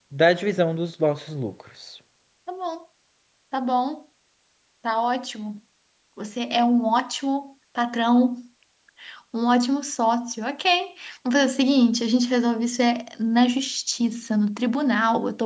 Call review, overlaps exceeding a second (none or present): none